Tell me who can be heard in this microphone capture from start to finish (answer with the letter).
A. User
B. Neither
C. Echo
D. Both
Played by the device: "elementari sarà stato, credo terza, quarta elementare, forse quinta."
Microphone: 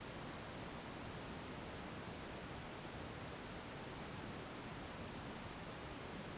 B